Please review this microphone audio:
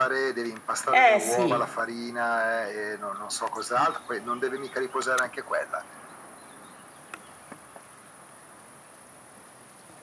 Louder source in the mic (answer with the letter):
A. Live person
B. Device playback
A